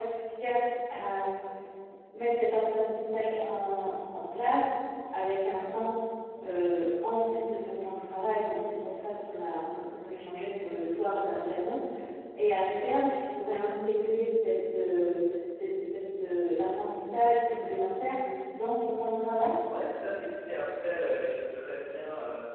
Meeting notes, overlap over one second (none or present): none